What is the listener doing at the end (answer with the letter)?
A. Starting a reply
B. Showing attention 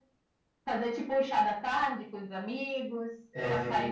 B